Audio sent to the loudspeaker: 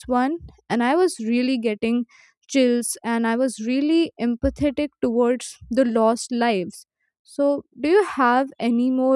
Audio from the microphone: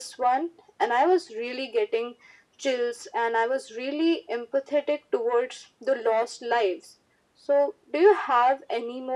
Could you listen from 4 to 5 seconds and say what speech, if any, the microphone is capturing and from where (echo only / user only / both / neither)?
echo only